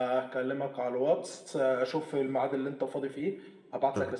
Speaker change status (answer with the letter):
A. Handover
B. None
B